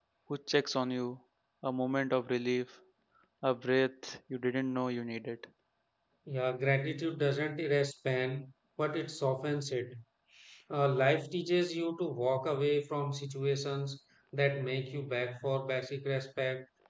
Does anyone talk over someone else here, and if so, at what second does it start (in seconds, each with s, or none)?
none